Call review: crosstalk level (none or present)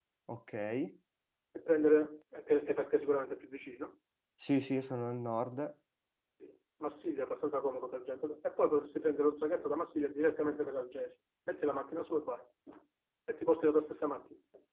none